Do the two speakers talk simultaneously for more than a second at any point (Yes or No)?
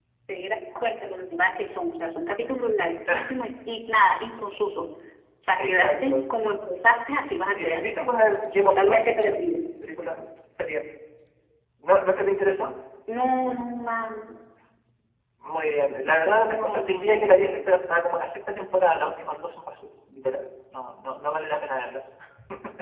Yes